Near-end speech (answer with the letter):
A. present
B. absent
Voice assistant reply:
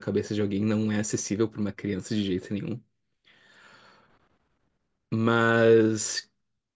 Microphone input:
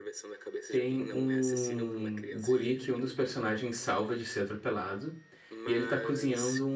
A